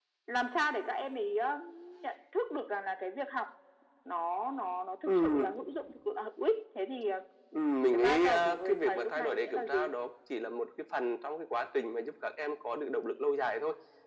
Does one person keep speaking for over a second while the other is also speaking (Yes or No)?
Yes